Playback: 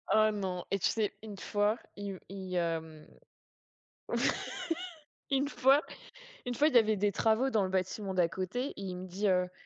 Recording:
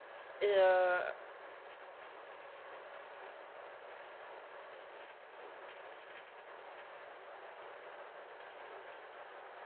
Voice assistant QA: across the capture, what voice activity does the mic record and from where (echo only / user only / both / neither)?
user only